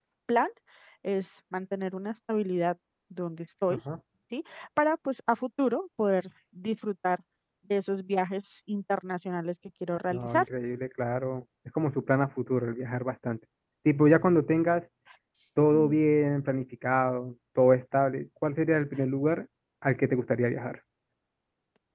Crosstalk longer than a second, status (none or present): none